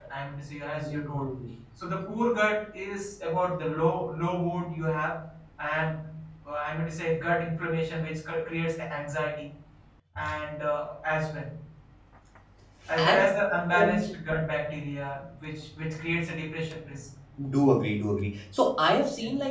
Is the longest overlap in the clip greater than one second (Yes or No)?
No